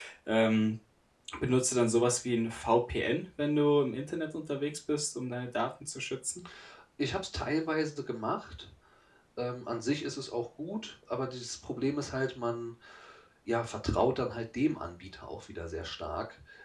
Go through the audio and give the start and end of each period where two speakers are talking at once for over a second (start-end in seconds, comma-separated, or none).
none